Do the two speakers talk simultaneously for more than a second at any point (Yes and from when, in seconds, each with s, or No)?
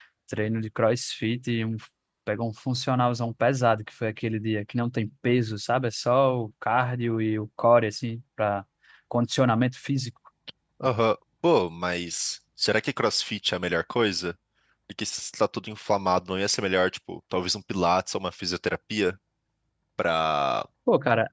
No